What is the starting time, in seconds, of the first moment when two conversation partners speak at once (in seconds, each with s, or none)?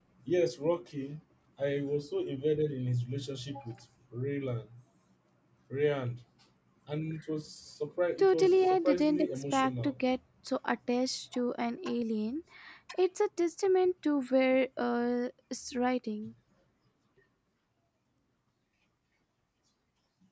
8.2 s